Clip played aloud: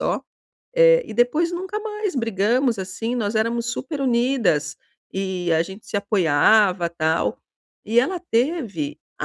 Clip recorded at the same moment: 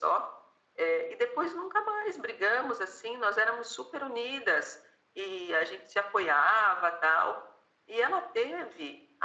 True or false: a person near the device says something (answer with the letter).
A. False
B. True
A